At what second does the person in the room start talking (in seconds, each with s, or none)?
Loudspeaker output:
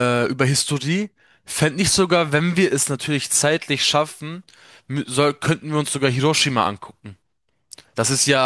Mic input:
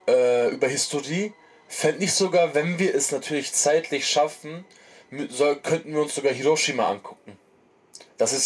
none